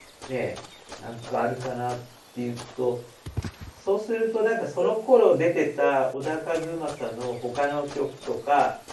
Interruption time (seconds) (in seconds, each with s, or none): none